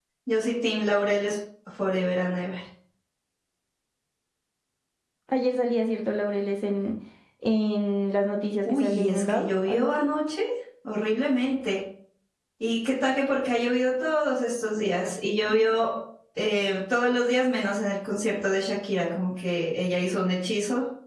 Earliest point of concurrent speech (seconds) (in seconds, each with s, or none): 8.7 s